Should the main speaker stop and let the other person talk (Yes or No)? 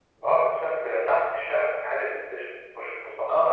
Yes